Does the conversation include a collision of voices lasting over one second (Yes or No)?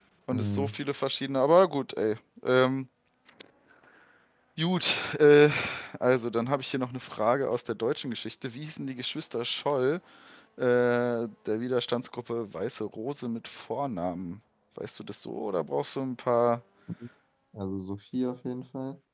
No